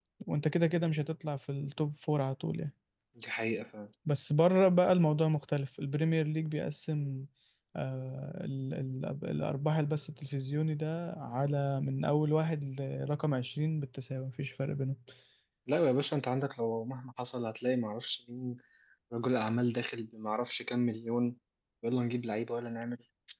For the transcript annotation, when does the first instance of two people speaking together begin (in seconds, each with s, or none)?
none